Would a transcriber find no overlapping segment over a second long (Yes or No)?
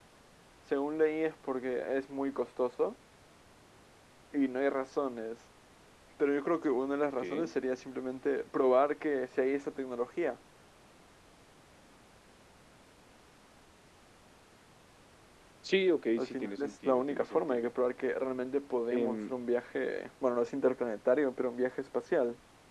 No